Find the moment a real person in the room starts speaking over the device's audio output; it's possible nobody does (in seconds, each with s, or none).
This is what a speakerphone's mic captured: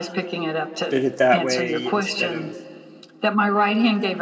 0.9 s